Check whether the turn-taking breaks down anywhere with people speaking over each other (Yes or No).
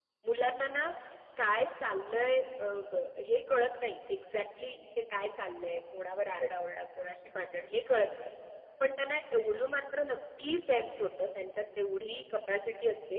No